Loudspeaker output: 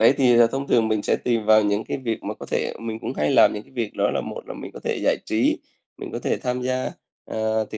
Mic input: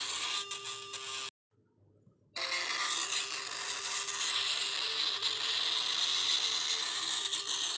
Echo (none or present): none